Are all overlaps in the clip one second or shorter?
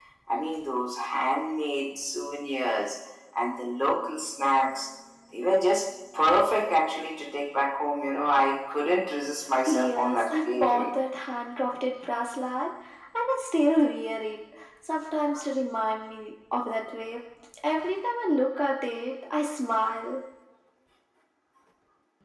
No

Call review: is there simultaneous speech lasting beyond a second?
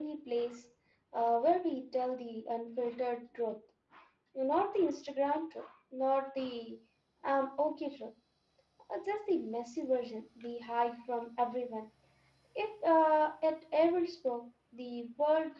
No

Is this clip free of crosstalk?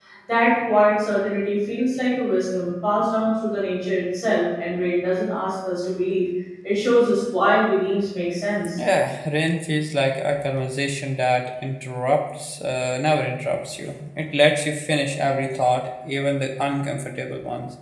Yes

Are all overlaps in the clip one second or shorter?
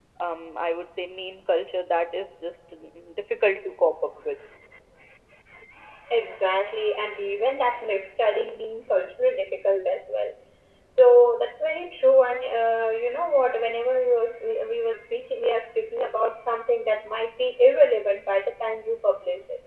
Yes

